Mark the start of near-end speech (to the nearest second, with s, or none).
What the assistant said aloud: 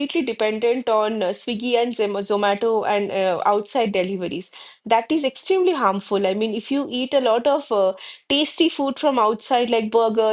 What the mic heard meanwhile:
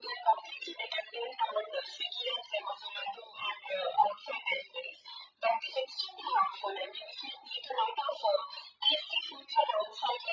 none